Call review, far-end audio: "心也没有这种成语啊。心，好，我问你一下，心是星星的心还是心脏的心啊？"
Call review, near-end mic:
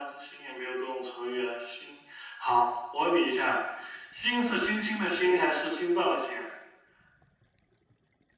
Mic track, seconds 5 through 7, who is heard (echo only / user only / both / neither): echo only